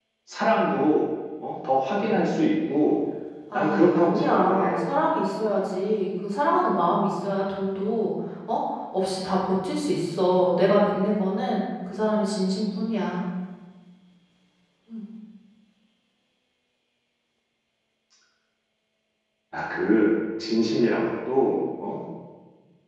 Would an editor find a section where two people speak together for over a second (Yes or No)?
Yes